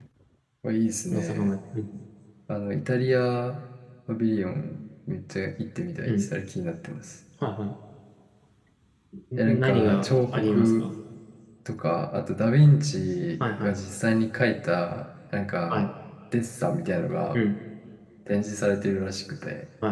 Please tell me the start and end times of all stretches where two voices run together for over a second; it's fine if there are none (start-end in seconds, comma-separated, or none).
9.4-10.9